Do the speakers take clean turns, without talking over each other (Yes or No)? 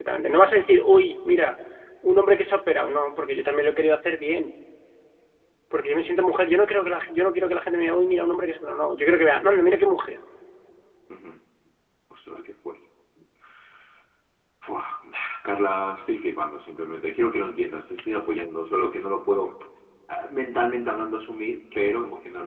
Yes